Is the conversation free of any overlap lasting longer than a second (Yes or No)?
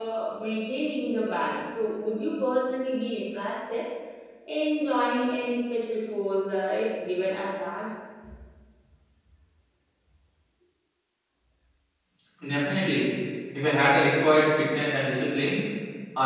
Yes